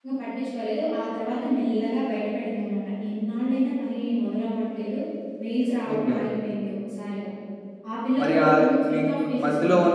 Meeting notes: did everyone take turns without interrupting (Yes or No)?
No